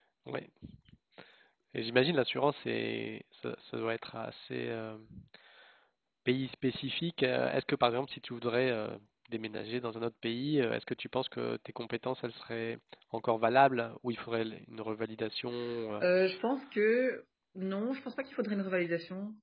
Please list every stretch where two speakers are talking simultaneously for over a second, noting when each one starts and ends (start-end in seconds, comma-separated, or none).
none